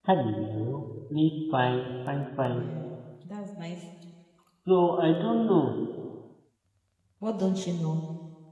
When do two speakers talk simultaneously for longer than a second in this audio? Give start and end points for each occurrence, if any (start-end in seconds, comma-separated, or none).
none